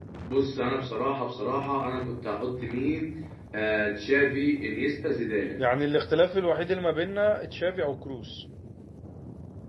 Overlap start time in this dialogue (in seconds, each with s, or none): none